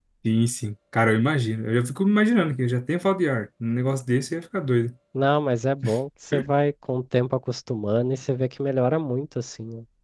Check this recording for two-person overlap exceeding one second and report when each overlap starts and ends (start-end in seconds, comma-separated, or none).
none